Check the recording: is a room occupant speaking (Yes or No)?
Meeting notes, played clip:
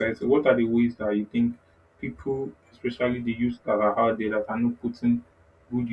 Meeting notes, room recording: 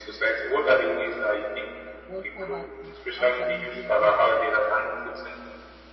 Yes